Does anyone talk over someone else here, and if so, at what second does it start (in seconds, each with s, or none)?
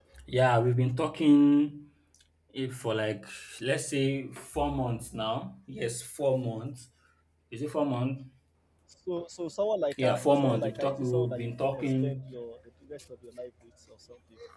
9.9 s